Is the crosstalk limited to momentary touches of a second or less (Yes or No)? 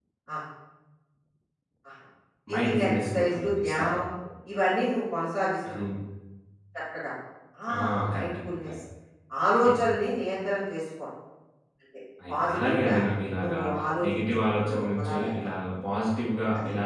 No